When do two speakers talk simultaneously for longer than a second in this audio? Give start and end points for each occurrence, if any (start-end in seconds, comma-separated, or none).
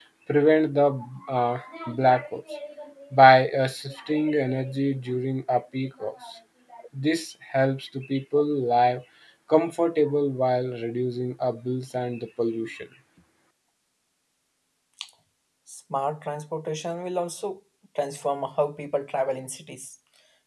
none